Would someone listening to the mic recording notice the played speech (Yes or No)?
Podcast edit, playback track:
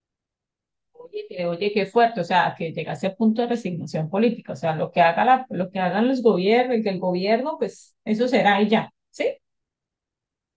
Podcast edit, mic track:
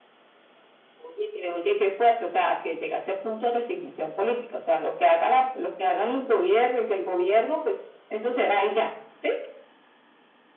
Yes